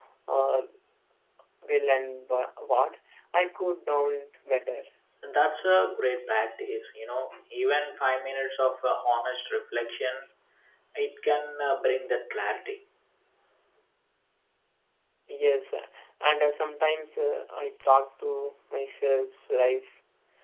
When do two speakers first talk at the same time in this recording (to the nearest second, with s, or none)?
none